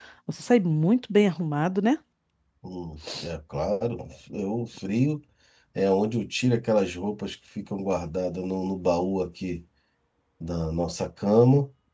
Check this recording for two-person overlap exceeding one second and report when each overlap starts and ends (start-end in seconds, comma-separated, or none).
none